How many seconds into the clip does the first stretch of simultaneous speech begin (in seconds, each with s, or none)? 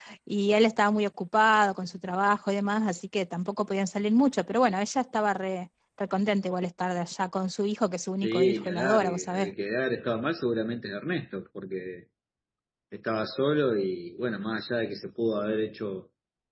8.2 s